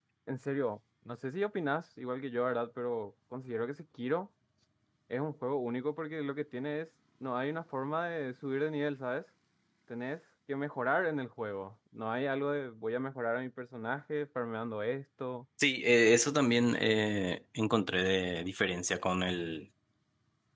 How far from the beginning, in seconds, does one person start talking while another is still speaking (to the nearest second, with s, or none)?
none